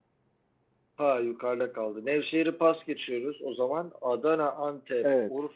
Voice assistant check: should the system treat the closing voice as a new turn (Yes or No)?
No